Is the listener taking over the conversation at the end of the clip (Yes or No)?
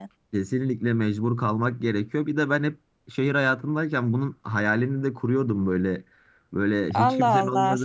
Yes